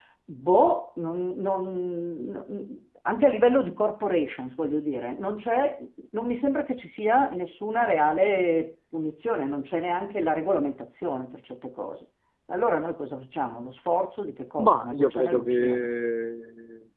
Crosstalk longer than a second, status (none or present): present